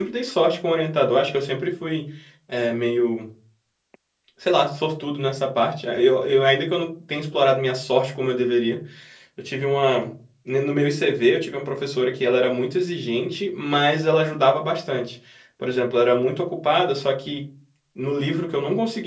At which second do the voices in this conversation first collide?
none

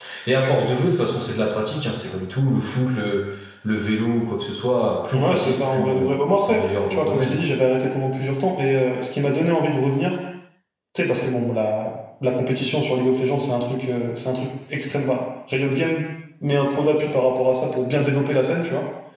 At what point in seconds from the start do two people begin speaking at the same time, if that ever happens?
5.1 s

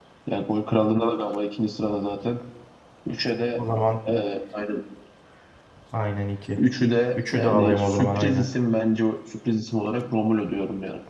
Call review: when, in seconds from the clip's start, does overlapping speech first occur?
7.1 s

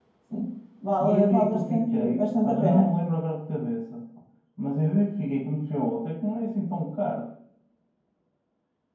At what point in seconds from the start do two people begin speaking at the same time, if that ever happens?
1.0 s

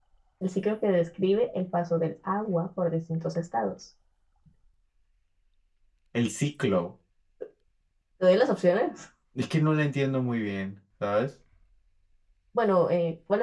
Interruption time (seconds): none

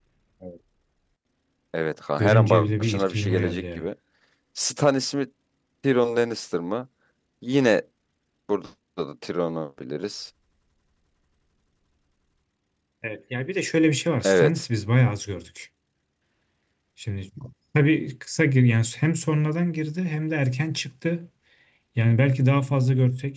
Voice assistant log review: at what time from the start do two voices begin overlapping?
2.2 s

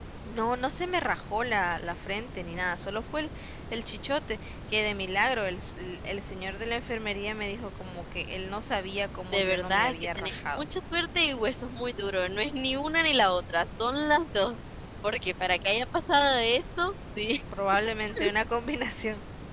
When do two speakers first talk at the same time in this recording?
9.3 s

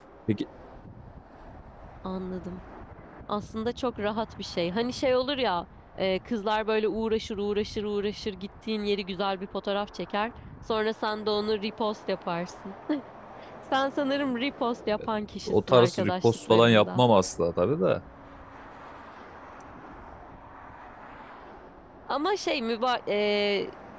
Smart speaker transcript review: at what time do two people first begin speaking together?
15.5 s

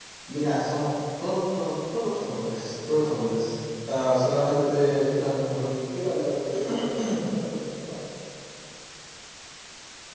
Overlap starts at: 4.4 s

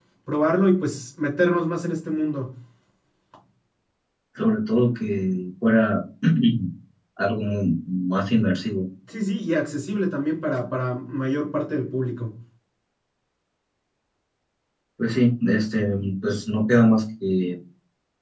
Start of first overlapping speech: none

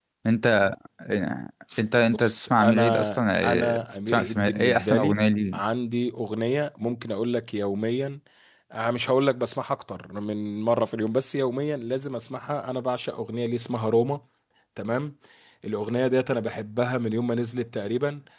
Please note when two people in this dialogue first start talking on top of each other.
2.1 s

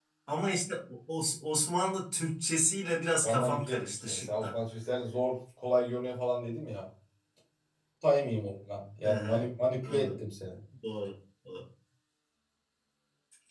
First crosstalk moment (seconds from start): 3.2 s

